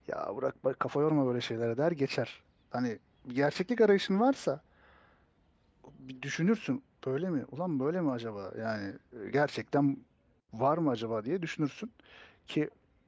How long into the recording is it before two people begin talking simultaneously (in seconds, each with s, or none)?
none